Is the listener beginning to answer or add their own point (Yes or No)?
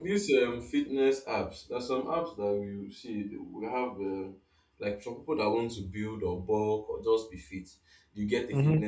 No